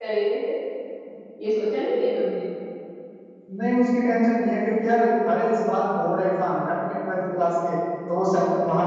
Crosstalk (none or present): none